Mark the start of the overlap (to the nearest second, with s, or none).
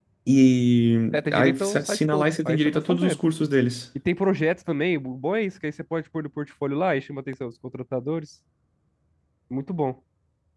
1 s